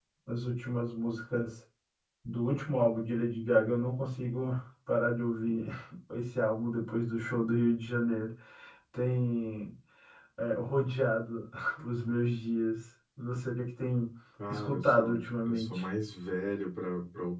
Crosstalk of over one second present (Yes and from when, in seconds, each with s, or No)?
Yes, from 14.5 s